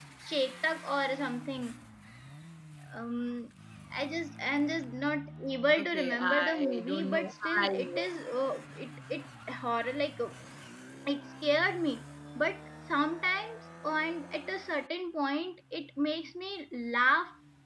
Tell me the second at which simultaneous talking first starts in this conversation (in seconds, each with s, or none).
5.8 s